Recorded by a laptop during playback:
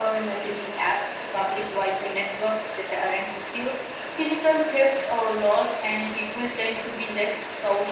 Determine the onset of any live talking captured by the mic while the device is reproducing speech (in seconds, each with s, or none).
none